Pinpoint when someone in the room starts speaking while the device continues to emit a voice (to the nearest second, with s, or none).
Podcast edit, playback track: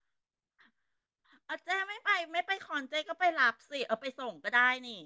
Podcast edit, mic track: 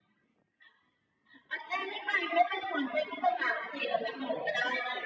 none